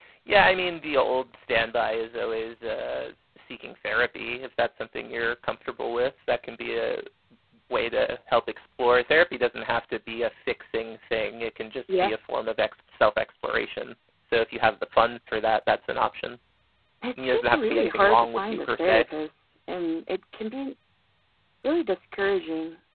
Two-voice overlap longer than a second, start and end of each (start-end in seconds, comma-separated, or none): 17.2-19.1